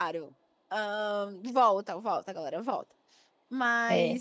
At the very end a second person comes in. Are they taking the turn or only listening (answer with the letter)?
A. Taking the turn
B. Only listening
B